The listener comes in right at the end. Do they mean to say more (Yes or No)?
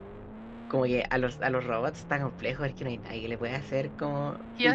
Yes